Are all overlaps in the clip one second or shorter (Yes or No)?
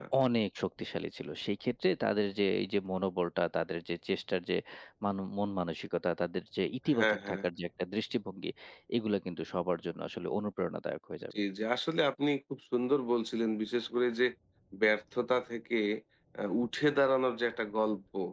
Yes